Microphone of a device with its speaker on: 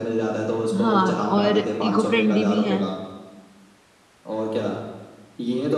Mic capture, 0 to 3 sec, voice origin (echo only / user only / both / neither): both